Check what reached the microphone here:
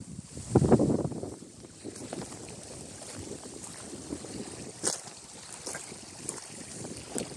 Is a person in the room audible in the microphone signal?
No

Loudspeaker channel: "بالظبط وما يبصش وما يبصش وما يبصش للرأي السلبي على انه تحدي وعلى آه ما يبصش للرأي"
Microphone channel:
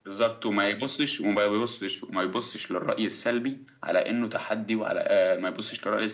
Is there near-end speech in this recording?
No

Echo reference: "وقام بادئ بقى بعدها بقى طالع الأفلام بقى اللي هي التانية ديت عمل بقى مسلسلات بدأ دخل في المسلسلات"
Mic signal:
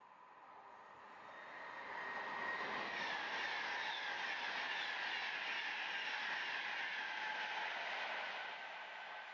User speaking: No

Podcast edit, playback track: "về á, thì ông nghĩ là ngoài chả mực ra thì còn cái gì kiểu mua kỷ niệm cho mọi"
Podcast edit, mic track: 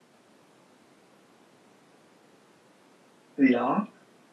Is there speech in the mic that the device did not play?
Yes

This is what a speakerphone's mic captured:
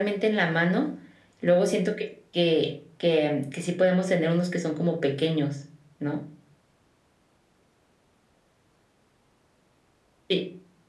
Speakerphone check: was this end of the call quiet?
Yes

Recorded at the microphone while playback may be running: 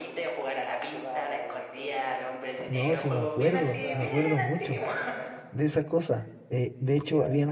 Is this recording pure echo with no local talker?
No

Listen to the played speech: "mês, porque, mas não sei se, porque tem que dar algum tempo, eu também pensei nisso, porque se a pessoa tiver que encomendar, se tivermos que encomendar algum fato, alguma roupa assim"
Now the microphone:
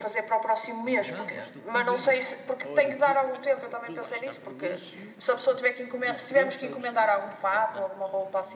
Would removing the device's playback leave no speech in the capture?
No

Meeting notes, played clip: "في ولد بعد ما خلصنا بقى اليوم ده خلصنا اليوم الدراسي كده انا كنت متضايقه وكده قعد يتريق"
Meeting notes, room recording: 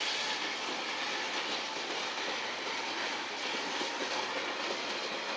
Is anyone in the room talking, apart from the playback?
No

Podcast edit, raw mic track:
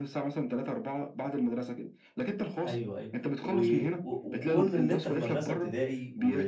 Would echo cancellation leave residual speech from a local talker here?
Yes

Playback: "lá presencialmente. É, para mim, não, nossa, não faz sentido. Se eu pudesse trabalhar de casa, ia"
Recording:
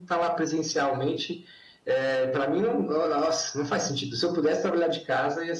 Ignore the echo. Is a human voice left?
No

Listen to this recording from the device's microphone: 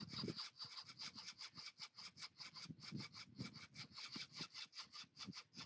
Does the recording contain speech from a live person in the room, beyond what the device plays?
No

